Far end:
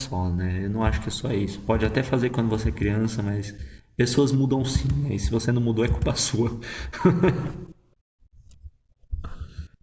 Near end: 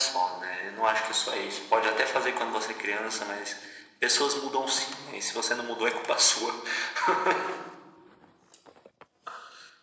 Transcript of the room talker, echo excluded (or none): none